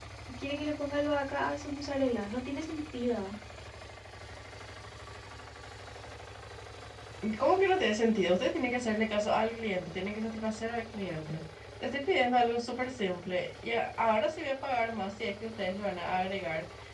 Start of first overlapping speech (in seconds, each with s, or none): none